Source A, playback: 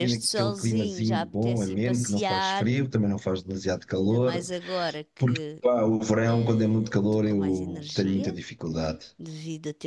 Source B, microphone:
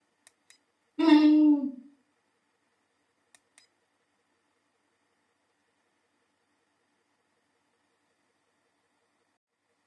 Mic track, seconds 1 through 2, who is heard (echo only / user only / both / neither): user only